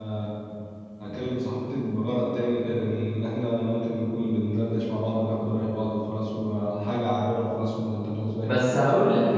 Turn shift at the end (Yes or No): Yes